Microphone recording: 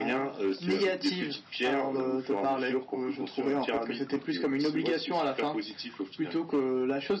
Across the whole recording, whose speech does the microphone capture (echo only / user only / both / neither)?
echo only